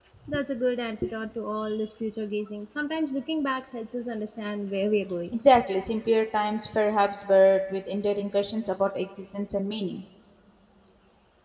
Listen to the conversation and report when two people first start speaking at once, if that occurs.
none

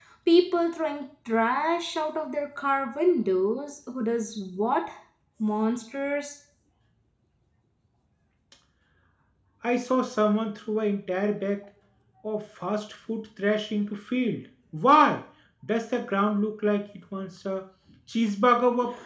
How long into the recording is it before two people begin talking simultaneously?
none

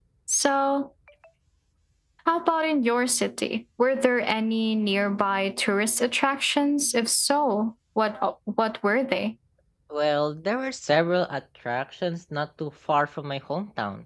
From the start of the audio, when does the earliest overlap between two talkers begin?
none

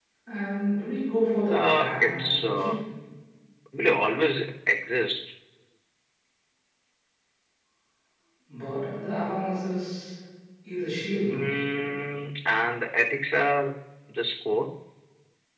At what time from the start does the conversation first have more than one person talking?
1.5 s

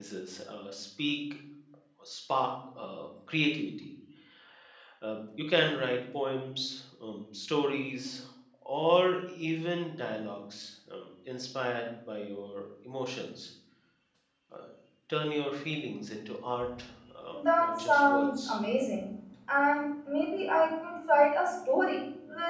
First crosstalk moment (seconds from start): 17.4 s

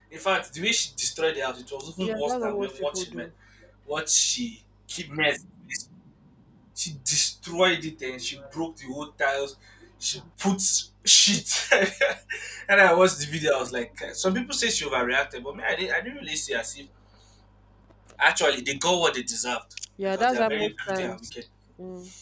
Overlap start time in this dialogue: 2.0 s

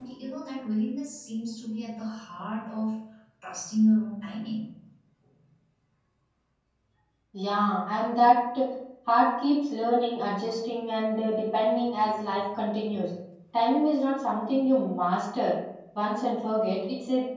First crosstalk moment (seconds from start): none

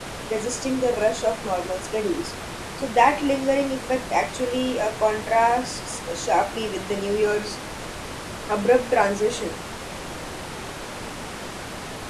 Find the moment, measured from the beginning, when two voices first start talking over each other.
none

